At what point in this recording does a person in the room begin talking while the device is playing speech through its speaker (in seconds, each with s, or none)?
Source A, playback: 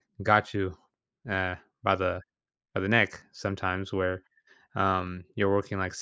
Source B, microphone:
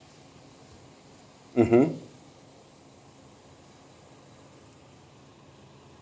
1.6 s